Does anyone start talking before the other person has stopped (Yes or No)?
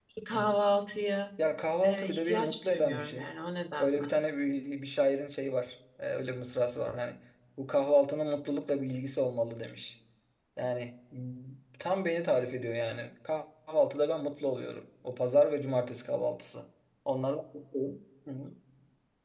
Yes